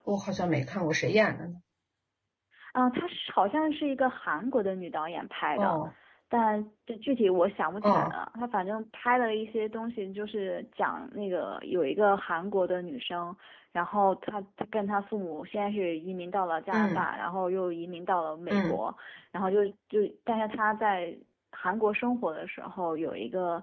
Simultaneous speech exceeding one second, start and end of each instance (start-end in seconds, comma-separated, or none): none